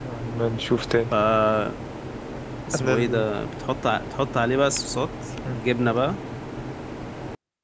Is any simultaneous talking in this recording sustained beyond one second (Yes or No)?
No